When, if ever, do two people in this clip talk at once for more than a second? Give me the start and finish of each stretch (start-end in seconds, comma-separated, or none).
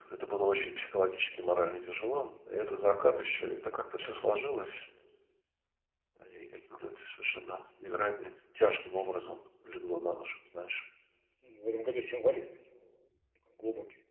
none